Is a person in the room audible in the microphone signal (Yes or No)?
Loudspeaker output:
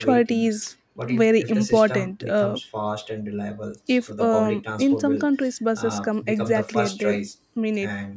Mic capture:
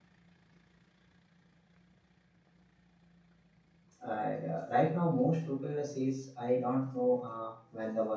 Yes